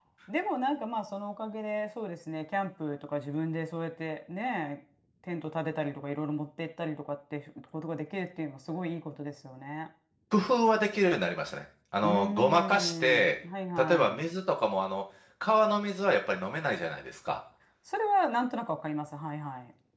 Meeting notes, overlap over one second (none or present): present